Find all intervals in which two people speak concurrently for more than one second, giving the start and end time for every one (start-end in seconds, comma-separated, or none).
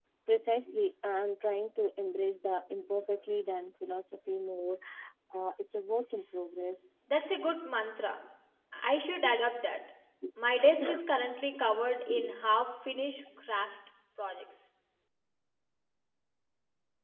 none